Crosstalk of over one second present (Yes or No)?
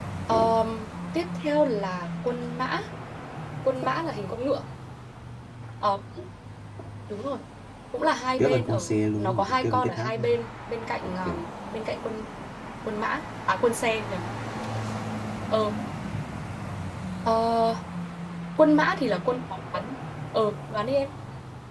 Yes